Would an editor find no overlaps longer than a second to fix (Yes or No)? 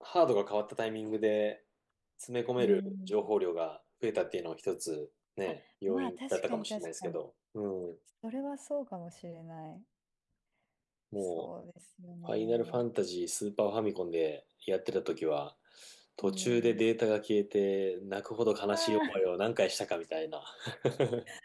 No